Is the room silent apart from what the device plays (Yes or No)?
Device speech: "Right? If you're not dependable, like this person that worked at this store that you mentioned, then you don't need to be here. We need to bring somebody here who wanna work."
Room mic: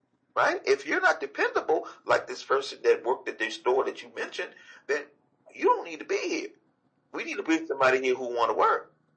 Yes